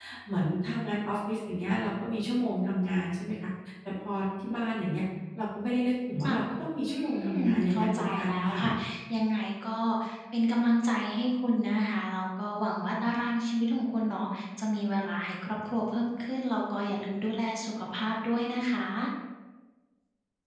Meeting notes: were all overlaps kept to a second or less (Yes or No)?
No